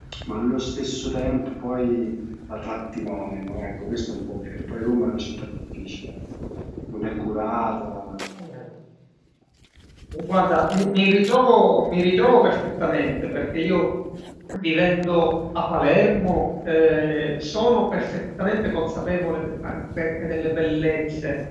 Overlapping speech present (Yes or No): No